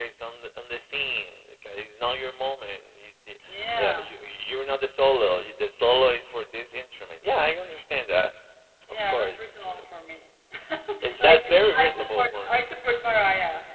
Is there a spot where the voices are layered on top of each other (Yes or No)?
Yes